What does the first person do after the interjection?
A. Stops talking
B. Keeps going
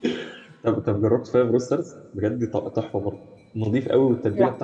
B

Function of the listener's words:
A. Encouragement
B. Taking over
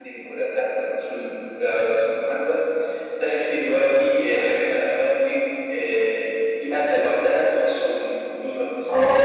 B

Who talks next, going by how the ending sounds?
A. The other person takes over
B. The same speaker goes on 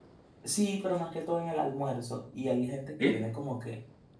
B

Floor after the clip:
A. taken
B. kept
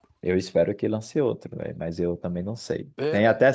B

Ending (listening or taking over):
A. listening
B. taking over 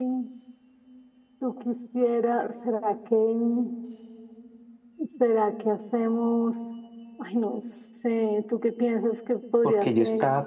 B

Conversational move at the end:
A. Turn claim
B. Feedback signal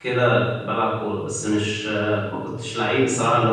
B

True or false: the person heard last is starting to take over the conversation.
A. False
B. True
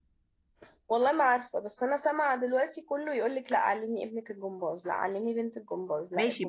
B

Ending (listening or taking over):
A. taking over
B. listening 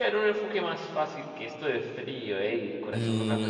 A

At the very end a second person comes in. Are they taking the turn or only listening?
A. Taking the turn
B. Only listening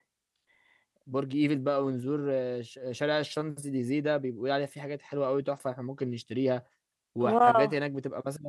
B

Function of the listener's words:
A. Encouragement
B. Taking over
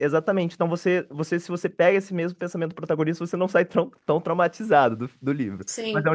B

